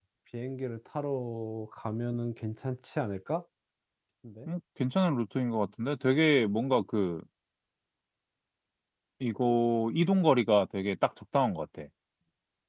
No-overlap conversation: Yes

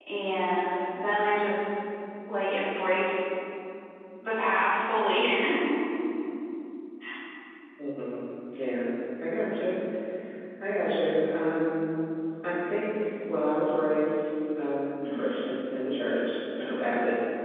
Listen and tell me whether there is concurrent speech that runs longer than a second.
No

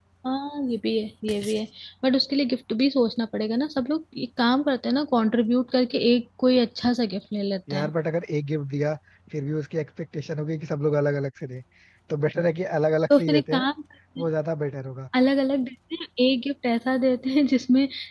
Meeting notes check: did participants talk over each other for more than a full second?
No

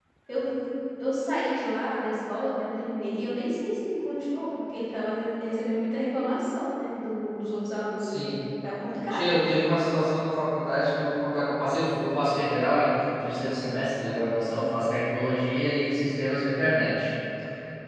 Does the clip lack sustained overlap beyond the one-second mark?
Yes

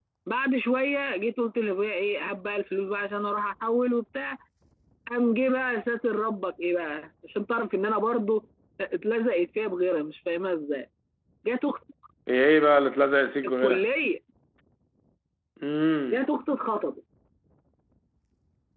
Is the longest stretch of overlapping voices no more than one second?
Yes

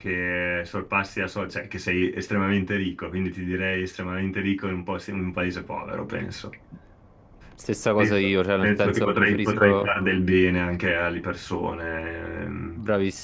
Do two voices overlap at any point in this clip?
Yes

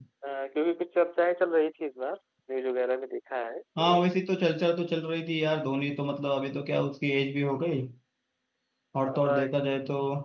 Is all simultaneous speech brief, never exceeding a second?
Yes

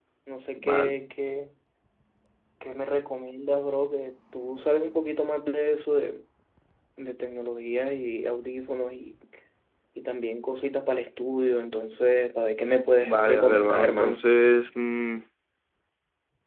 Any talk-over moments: Yes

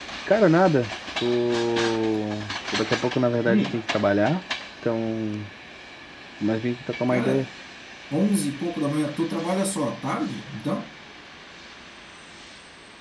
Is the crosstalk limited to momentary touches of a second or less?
Yes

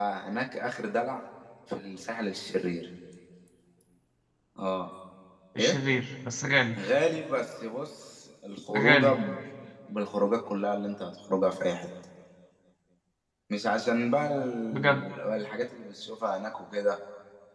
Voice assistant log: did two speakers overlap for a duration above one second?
No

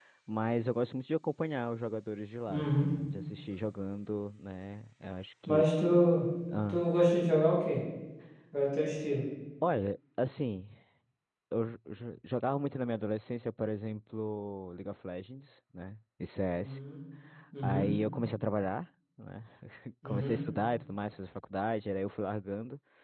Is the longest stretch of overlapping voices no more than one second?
Yes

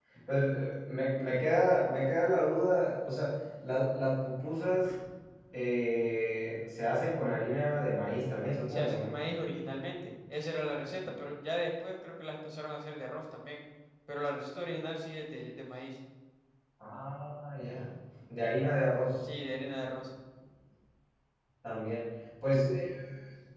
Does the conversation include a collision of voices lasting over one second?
No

